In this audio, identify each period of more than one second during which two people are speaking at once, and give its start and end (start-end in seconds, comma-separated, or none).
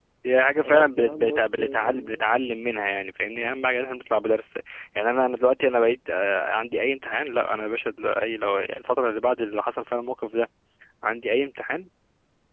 0.6-2.2